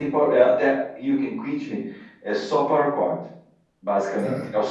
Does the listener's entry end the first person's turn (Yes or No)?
No